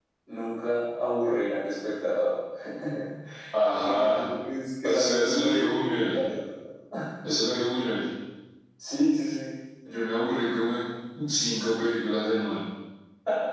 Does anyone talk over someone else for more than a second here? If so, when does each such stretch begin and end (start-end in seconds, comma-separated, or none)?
4.8-6.2